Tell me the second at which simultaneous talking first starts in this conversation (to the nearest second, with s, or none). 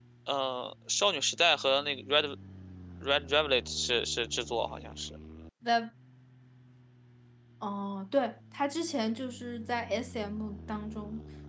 none